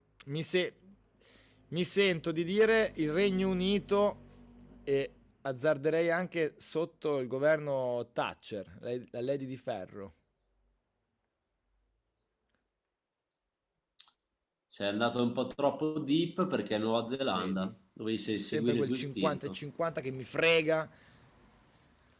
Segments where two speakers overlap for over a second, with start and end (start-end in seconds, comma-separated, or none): 18.3-19.6